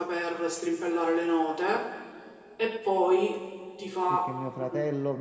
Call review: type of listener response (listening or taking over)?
taking over